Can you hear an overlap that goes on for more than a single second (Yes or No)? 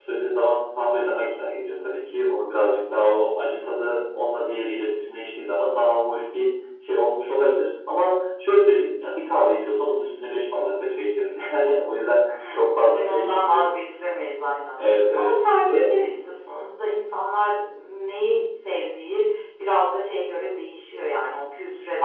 Yes